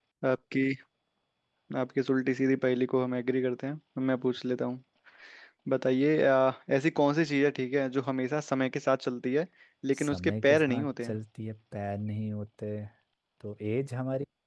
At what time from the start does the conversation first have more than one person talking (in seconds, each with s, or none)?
9.9 s